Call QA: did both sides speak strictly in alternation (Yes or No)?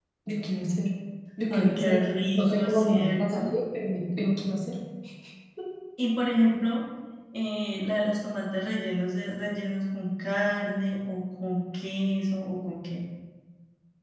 No